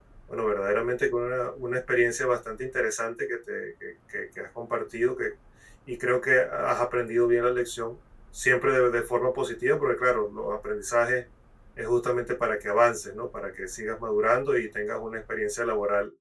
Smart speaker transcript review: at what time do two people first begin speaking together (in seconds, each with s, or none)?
none